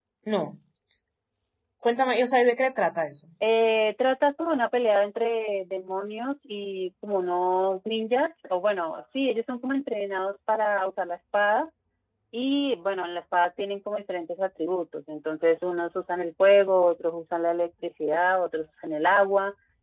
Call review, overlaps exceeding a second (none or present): none